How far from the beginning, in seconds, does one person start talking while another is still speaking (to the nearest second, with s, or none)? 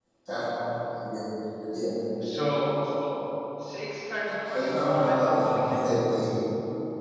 4 s